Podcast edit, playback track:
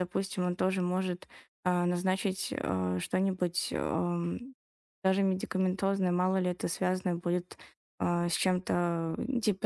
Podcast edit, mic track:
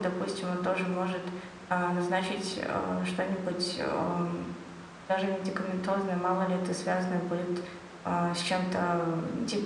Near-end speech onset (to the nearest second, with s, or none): none